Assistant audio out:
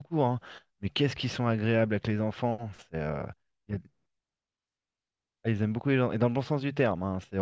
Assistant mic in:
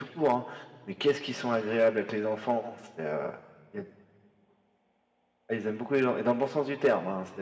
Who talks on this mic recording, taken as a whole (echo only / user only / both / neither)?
echo only